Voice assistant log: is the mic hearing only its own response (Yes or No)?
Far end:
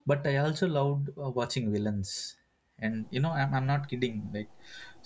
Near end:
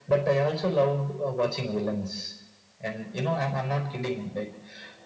Yes